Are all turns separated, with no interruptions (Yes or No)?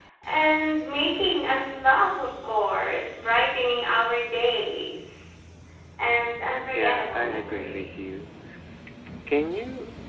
No